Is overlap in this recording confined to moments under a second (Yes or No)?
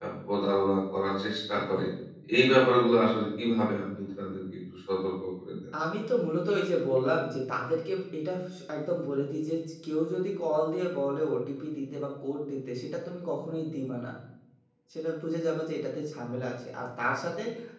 Yes